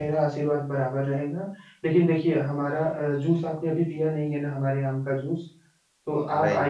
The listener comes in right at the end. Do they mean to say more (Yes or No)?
No